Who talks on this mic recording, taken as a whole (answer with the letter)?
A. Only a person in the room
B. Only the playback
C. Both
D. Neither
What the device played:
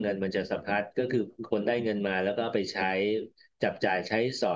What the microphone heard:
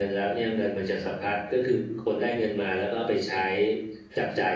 B